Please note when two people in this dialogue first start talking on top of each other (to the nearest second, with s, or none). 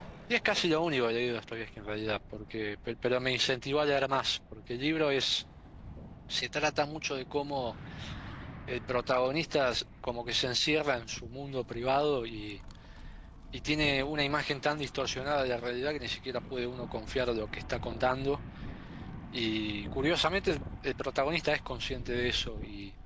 none